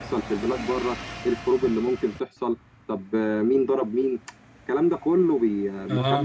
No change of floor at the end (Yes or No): No